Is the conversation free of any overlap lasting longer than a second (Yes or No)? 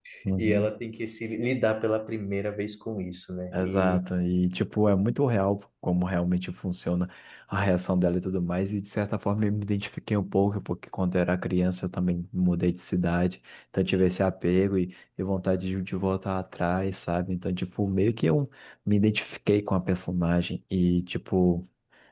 Yes